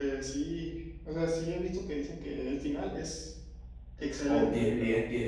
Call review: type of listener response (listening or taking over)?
taking over